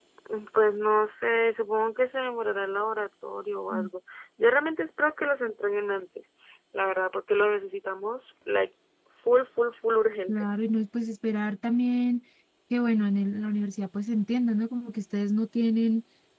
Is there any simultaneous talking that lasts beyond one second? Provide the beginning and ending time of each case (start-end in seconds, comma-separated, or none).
none